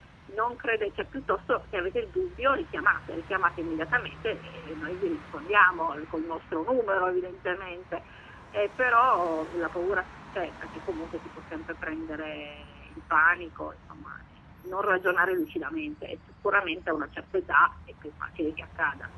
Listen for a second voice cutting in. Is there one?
No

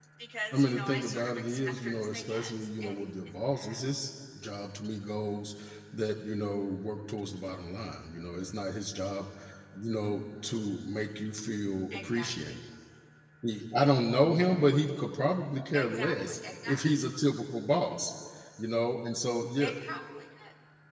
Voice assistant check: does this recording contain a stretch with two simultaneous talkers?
Yes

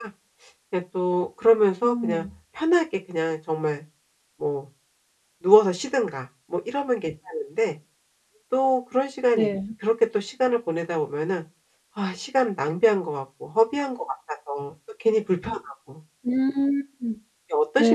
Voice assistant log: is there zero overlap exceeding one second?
Yes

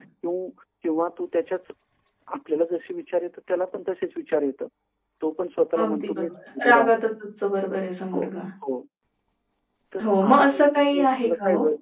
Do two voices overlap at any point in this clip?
Yes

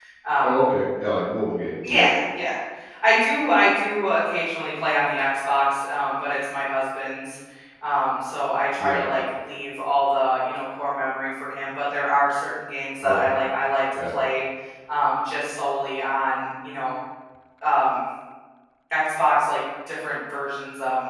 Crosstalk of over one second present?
No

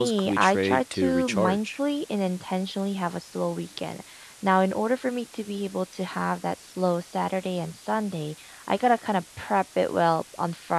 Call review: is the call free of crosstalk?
No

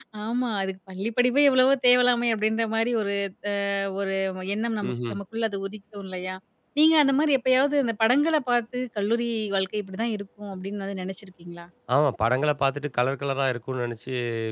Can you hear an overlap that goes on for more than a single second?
No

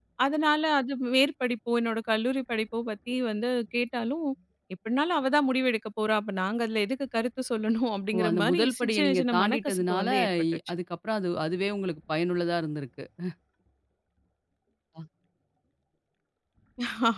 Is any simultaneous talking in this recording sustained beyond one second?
Yes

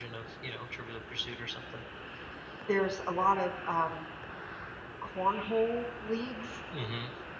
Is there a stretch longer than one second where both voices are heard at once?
No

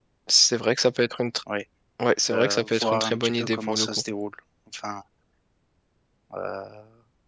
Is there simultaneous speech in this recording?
Yes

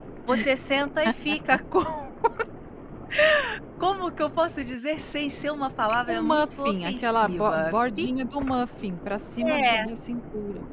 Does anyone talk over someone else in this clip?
Yes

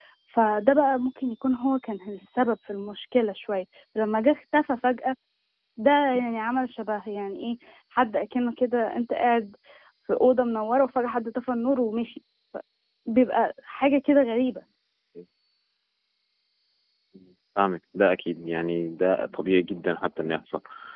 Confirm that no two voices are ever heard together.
Yes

